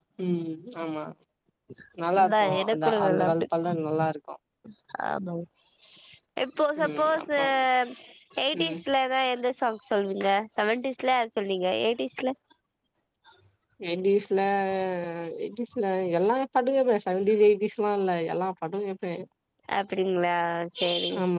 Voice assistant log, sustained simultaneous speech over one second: present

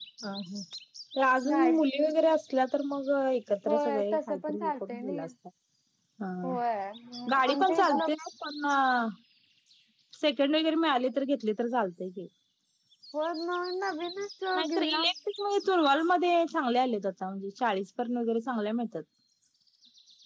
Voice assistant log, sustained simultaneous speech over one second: present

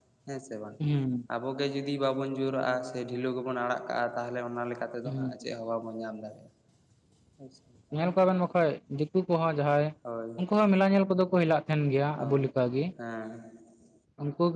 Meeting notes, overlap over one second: none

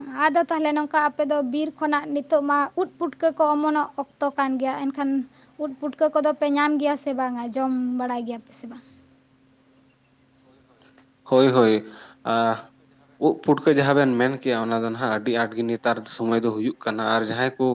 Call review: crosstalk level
none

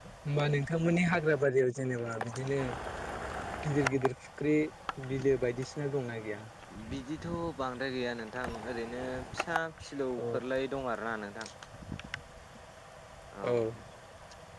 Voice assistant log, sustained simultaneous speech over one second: none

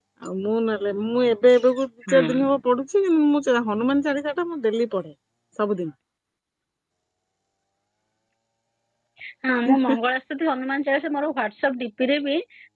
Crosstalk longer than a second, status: none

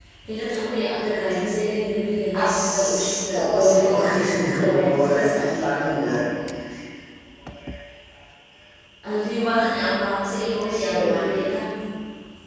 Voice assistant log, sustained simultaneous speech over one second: present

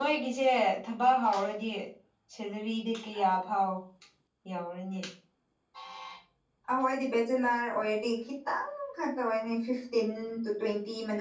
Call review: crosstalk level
none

